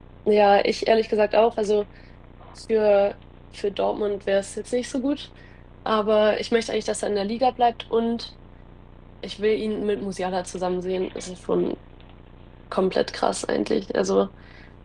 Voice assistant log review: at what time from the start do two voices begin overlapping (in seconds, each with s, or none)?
none